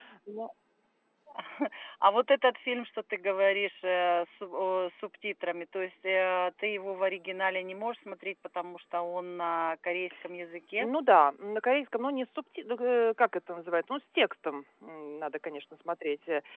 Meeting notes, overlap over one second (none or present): none